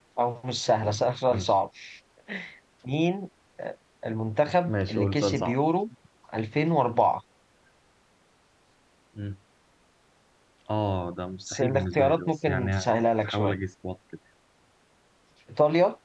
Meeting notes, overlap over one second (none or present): present